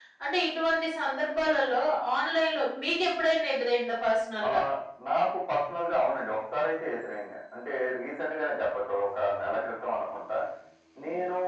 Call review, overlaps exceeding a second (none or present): none